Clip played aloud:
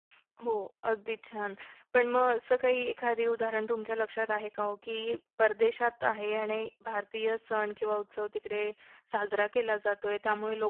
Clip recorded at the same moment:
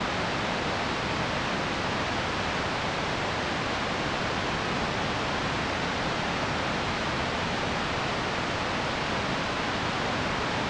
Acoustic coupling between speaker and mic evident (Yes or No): No